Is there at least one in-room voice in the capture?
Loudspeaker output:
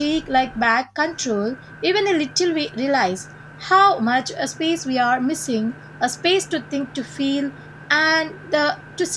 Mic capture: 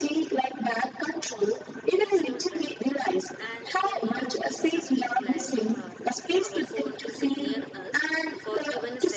Yes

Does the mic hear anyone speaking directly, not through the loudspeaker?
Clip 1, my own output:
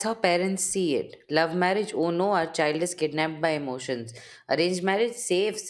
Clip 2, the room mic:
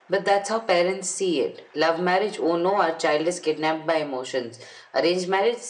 No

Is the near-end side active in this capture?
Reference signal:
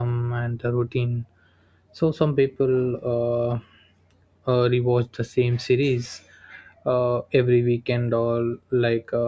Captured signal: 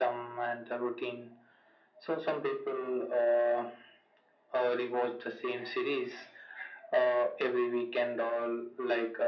No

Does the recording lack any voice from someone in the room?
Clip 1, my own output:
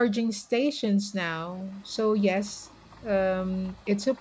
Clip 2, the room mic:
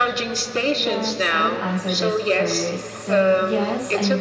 No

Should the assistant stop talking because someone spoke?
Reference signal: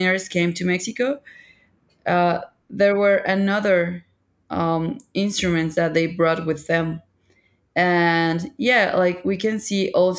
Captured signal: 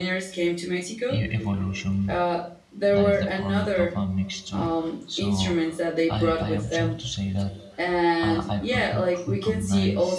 Yes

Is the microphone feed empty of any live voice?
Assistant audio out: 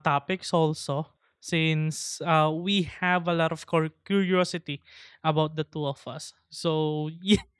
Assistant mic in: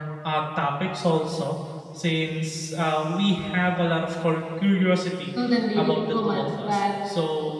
No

